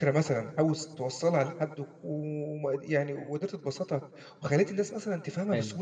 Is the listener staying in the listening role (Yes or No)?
No